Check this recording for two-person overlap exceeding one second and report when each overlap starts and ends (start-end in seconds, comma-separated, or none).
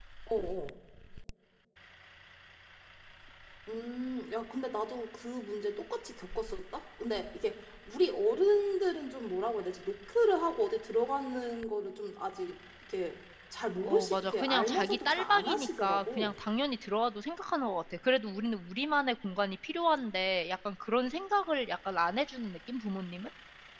13.8-16.3